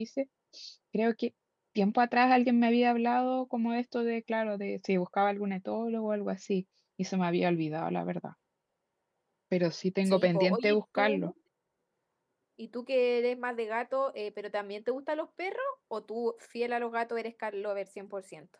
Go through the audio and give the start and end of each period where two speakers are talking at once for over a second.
10.0-11.3

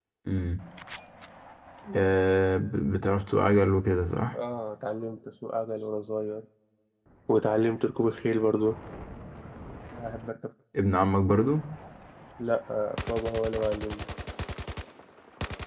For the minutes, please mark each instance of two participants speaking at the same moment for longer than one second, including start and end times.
none

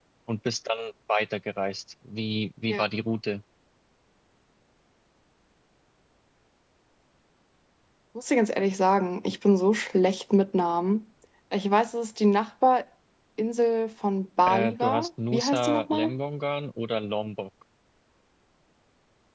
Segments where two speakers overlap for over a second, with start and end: 14.5-16.1

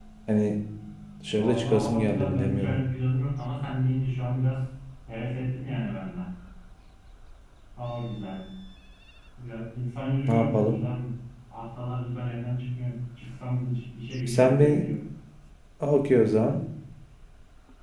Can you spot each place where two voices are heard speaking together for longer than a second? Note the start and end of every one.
1.3-2.8

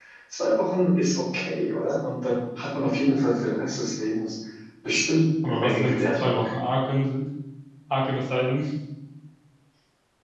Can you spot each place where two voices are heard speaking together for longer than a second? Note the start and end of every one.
5.4-6.7

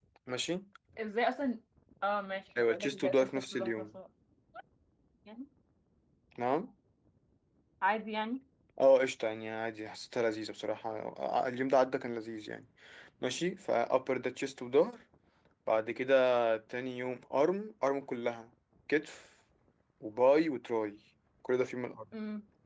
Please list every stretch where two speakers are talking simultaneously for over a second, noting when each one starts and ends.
2.6-4.0

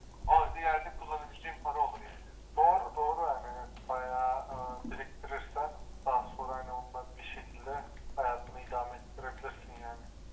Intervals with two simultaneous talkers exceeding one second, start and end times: none

